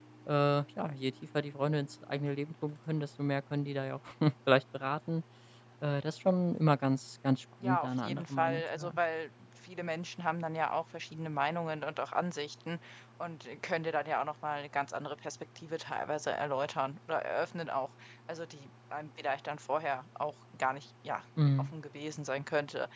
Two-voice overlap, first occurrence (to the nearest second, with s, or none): 8 s